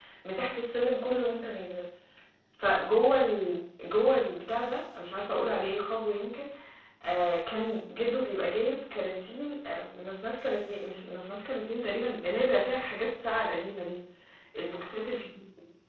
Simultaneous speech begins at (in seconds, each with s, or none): none